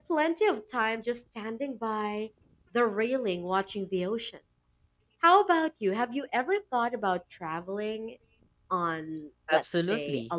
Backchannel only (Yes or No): No